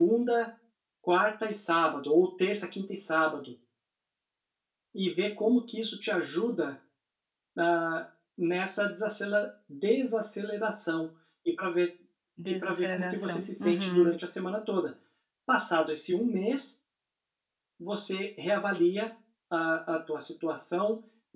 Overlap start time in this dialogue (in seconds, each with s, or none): 12.5 s